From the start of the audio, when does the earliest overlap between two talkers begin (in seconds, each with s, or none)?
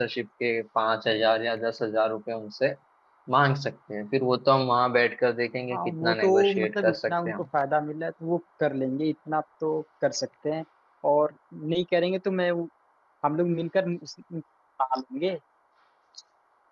5.7 s